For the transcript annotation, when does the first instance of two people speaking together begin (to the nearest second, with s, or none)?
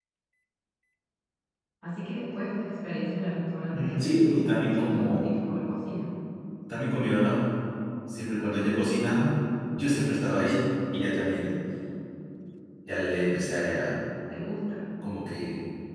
4 s